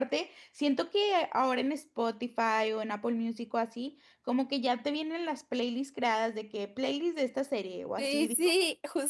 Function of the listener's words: taking over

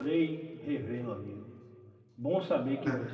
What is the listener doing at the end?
listening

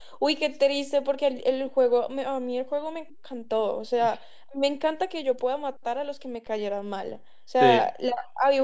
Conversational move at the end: listening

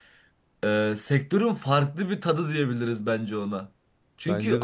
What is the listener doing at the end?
listening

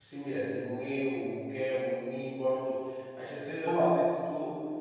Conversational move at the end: listening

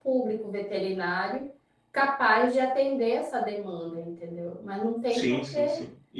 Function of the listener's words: taking over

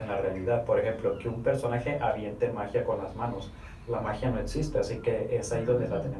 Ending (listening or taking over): listening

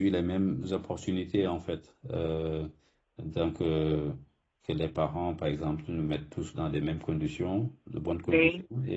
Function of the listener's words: listening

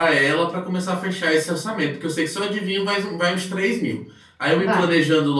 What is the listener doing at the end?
listening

